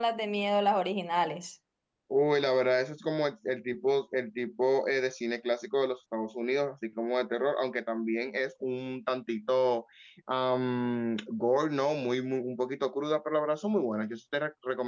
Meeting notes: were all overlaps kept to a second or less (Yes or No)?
Yes